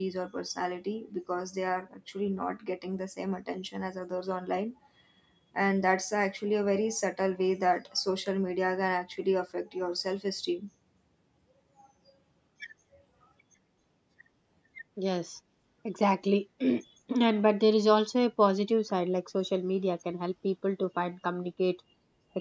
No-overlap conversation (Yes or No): Yes